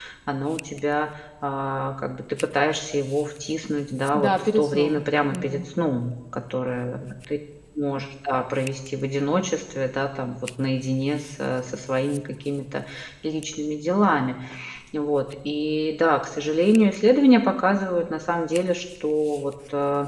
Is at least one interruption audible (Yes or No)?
Yes